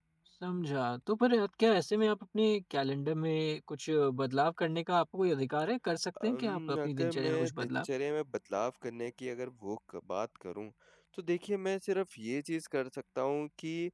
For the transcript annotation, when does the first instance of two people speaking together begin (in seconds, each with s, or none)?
6.2 s